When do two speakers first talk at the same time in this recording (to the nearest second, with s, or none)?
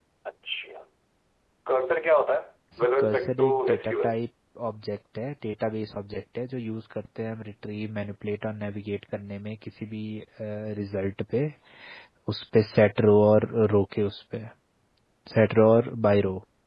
3 s